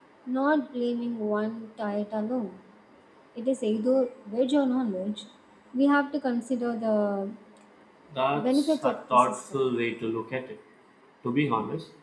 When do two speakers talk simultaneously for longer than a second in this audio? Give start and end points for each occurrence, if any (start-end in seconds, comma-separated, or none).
8.3-9.6